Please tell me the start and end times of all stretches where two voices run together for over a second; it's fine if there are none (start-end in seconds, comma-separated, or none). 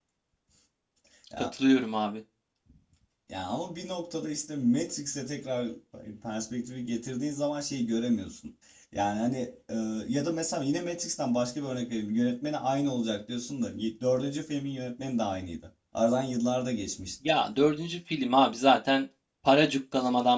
none